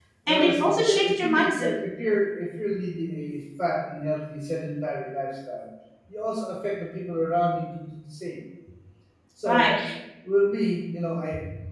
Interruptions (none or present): present